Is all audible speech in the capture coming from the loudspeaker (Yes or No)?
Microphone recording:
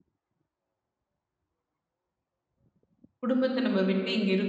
No